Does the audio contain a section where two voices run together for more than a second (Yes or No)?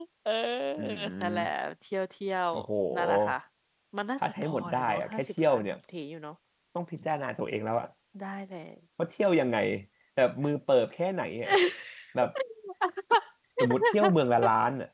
Yes